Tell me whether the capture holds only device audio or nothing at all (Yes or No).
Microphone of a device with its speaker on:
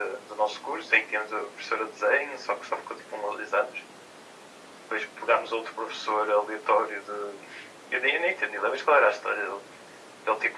Yes